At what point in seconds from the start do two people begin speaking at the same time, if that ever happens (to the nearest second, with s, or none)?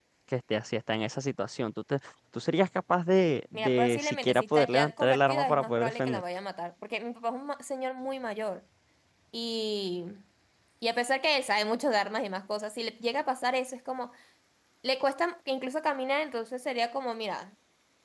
4 s